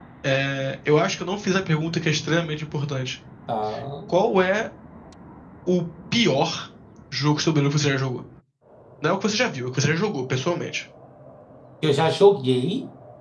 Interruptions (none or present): none